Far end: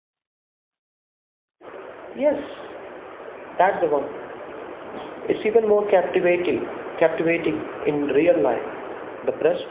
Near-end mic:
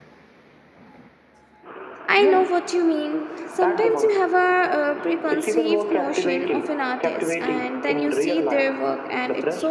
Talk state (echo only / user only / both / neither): both